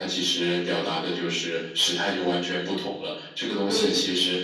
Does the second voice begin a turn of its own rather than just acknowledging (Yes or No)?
No